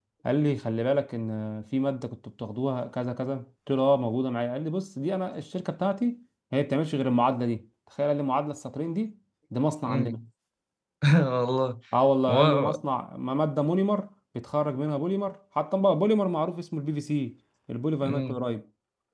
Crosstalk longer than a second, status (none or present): none